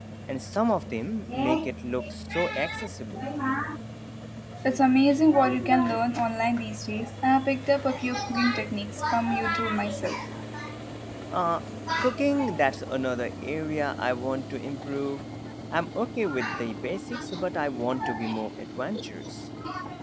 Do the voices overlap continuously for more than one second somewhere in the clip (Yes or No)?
No